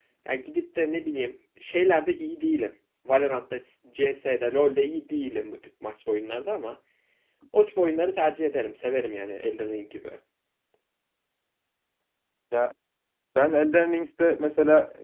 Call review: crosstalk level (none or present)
none